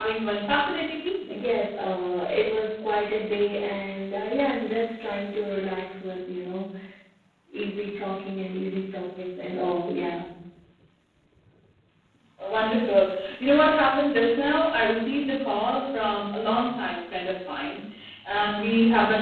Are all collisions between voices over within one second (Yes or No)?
Yes